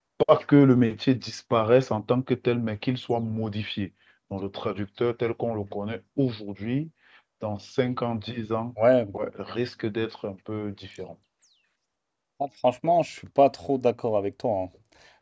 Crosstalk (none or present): none